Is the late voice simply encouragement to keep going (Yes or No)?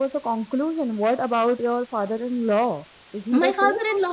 No